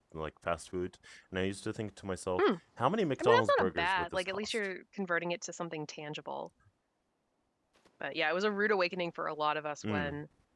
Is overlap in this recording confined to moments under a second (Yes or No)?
No